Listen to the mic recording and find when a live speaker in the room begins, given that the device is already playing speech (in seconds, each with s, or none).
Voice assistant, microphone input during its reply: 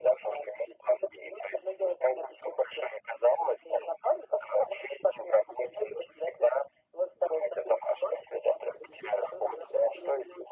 none